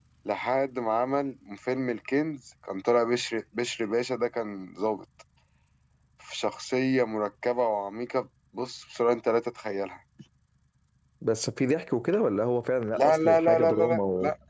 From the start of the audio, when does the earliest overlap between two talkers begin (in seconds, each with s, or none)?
12.9 s